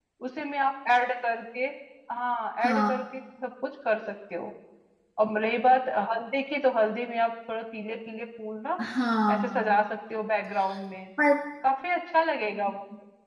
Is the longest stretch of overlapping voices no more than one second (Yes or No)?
Yes